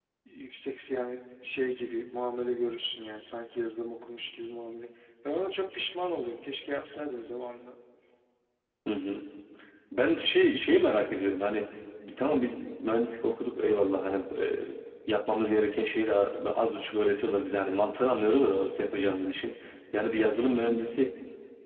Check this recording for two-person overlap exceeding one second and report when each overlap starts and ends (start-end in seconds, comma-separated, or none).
none